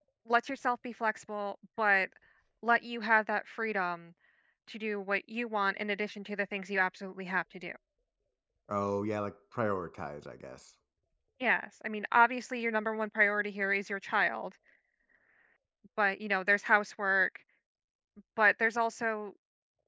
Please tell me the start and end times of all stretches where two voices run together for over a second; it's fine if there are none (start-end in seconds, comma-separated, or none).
none